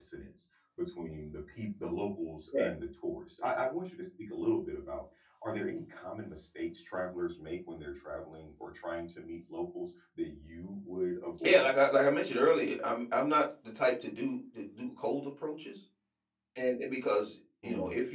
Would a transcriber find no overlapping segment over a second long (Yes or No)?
Yes